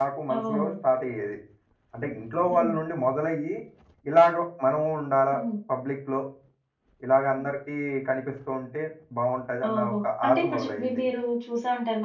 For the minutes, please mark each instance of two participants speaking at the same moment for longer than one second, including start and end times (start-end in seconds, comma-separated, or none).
9.7-11.0